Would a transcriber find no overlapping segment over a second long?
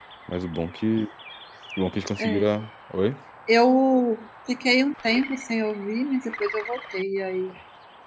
Yes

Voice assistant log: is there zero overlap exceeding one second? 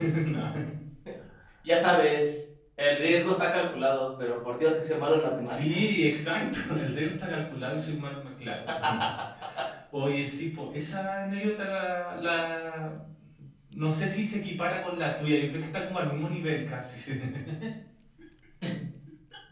Yes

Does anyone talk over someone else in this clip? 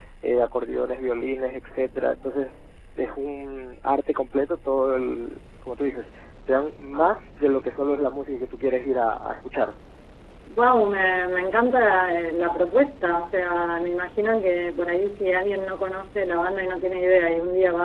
No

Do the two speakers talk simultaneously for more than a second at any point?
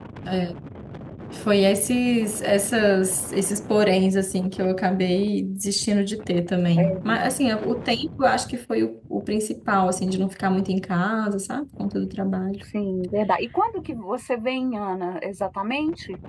No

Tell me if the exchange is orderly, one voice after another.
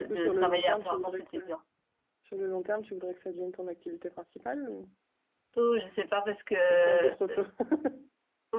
No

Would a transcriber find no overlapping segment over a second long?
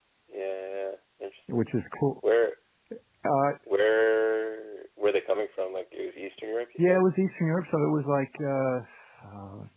Yes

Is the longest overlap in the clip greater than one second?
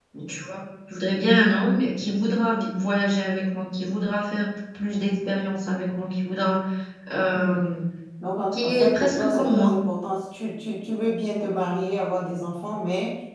Yes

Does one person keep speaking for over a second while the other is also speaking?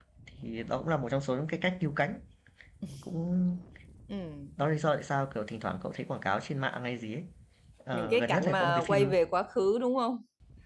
Yes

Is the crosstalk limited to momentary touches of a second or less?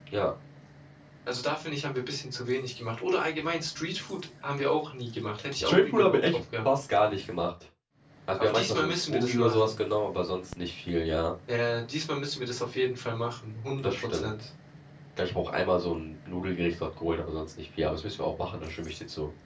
No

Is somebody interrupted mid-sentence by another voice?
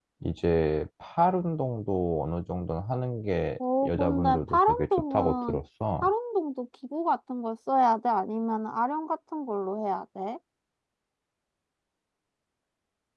Yes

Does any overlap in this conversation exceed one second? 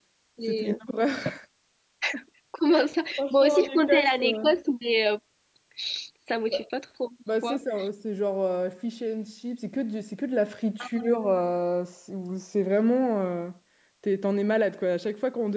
Yes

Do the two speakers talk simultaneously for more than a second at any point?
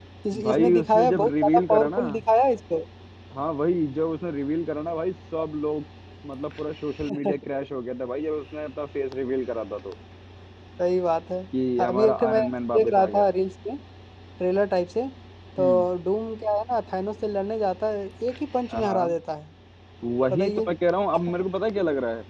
Yes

